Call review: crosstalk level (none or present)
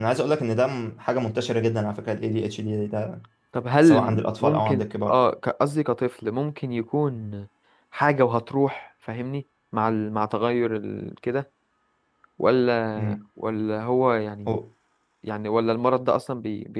present